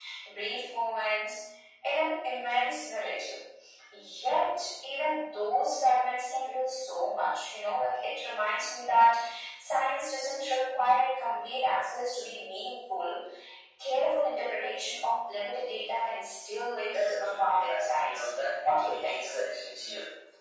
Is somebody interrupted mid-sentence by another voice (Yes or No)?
Yes